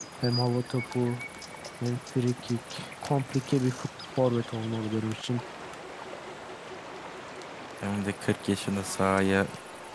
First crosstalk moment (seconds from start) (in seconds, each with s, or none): none